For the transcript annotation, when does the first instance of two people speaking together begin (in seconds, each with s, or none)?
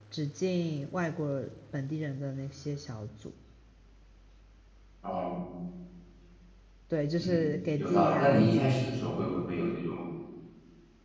7.2 s